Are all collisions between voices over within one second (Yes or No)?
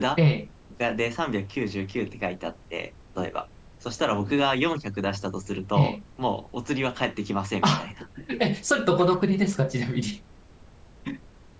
Yes